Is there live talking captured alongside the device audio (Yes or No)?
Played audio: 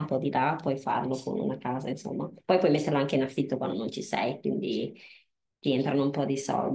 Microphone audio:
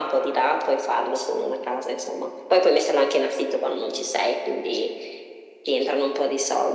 No